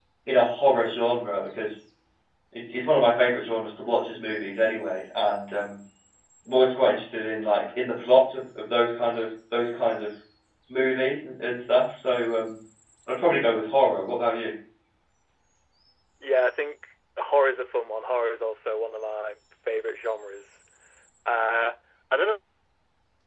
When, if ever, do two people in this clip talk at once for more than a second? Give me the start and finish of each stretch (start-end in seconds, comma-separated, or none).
none